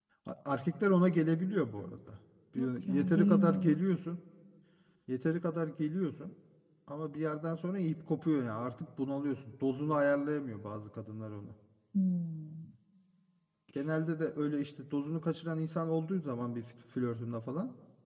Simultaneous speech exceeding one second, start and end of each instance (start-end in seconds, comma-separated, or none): 2.6-3.8